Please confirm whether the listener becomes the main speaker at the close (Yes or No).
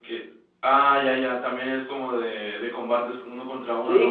Yes